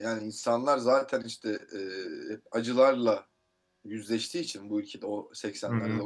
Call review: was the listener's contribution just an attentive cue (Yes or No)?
Yes